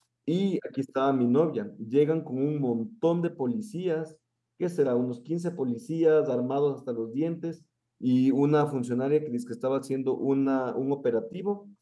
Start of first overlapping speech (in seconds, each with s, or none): none